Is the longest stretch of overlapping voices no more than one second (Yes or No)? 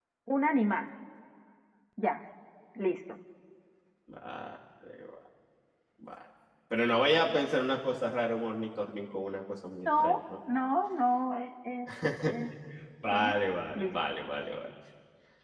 Yes